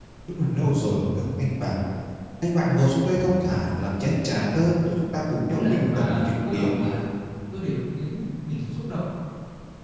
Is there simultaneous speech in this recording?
Yes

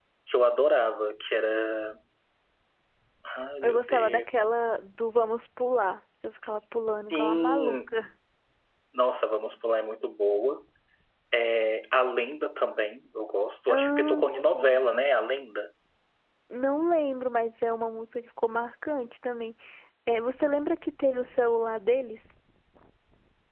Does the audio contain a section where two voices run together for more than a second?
Yes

